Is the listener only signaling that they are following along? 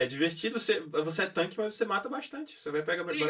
No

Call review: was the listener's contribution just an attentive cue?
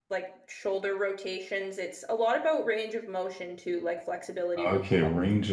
No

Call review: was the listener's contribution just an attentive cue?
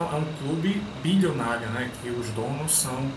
Yes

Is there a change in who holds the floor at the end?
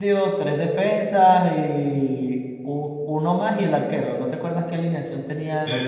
Yes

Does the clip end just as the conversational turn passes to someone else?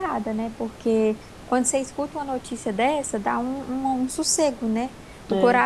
No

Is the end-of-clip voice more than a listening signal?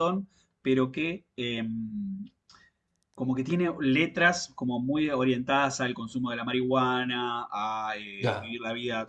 No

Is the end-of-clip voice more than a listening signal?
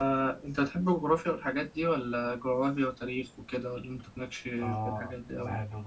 Yes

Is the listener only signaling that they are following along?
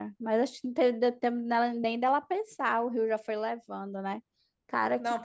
No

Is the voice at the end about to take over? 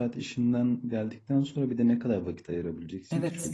Yes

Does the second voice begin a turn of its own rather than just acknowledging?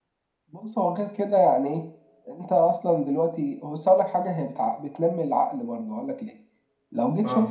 No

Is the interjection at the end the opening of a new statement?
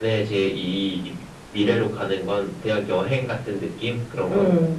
Yes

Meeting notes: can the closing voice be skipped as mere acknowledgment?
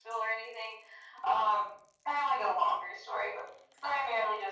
Yes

